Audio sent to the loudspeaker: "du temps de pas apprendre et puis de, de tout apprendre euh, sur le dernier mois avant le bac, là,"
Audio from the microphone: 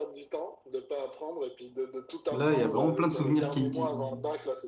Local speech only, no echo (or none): Là, il y a vraiment plein de souvenirs qui, qui,